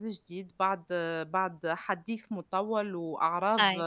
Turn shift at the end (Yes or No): No